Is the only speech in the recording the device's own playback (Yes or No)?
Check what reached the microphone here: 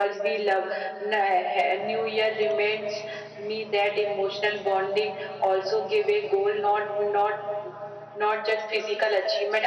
Yes